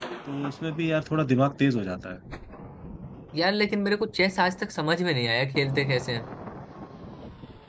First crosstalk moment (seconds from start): none

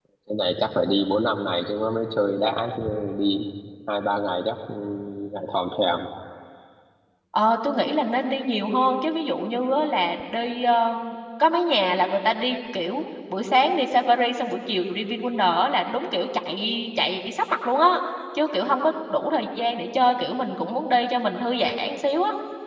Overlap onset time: none

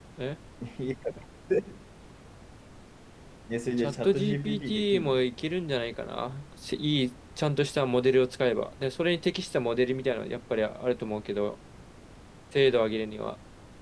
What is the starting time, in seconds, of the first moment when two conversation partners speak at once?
3.8 s

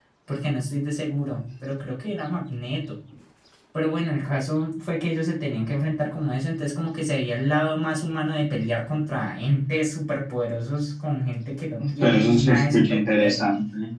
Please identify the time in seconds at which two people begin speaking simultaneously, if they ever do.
11.8 s

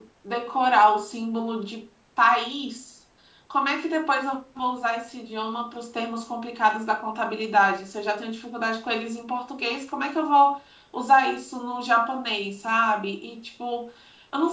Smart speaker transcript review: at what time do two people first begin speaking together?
none

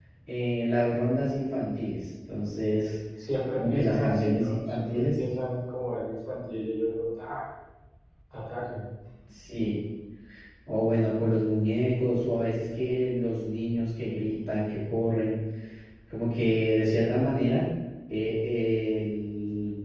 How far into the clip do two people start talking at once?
3.6 s

